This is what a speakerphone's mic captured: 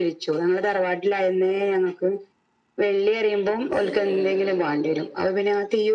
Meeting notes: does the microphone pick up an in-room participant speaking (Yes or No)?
Yes